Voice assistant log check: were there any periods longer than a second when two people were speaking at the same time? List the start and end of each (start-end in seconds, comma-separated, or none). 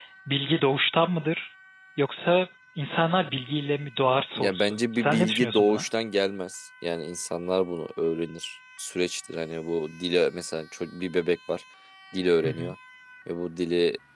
4.4-5.8